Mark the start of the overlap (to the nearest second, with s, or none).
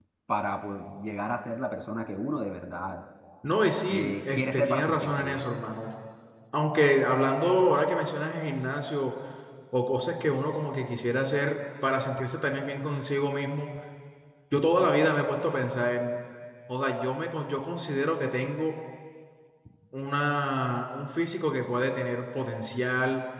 4 s